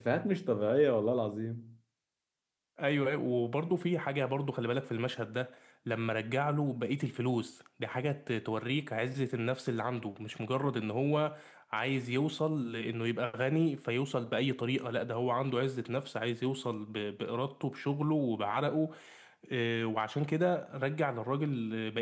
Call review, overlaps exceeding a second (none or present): none